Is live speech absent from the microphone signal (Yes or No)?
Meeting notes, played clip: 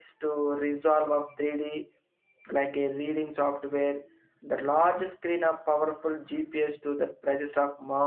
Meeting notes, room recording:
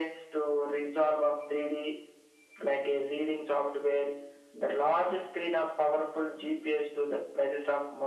Yes